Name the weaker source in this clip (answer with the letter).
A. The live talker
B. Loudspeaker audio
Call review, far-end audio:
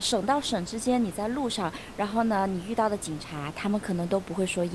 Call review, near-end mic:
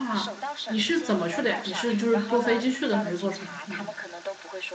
B